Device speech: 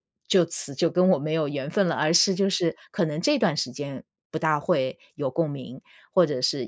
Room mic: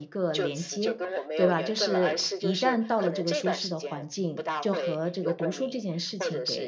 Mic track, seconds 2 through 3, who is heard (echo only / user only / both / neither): both